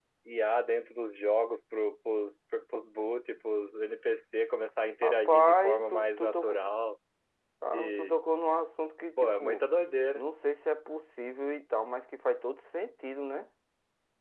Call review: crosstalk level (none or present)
present